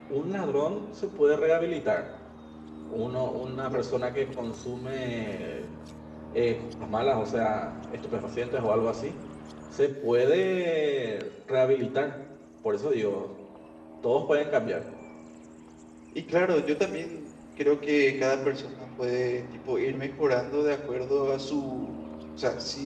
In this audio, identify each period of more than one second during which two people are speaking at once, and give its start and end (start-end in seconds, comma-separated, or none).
none